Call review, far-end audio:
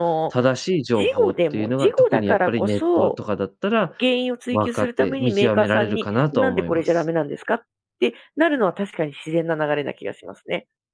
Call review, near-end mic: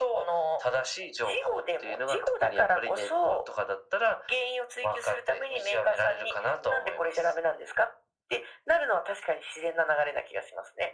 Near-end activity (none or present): none